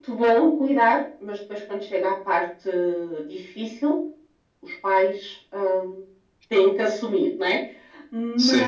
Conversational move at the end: listening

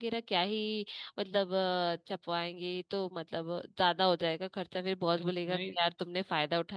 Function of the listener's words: listening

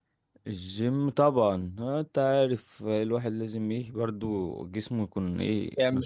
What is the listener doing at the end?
taking over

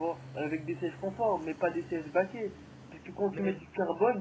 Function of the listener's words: listening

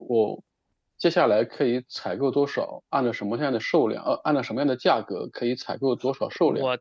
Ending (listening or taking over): taking over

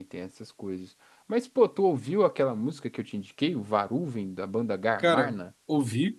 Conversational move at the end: taking over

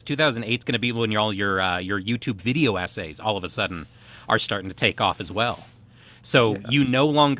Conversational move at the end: listening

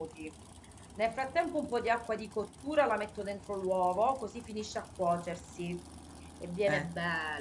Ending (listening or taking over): listening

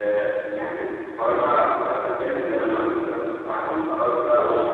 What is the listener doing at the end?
listening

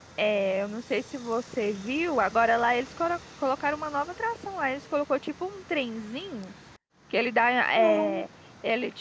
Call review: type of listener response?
listening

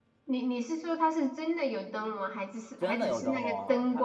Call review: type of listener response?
taking over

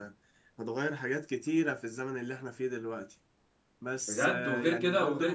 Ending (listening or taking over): taking over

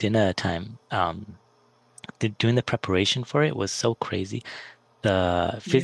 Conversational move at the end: listening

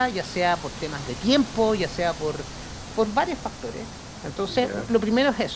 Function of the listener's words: listening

